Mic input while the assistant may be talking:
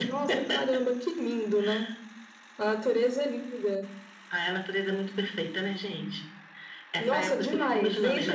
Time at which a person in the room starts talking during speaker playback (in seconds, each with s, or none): none